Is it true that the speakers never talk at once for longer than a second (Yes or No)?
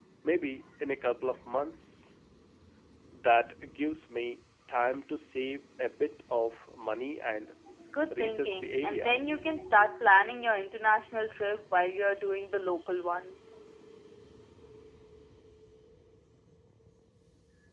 No